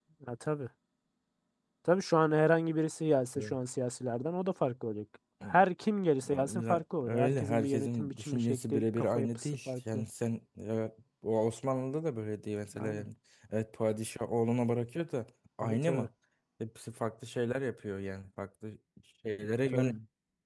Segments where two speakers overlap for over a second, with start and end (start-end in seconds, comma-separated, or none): 6.5-10.1